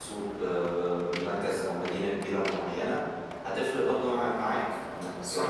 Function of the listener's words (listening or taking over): listening